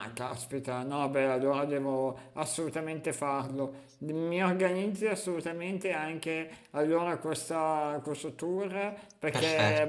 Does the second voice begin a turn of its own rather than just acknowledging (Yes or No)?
No